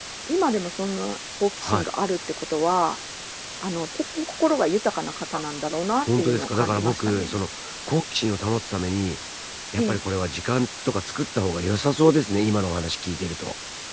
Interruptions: present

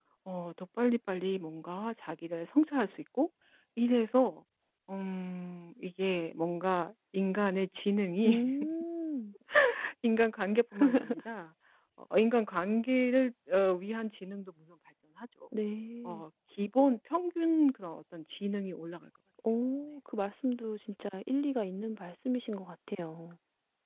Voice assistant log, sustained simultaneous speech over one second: none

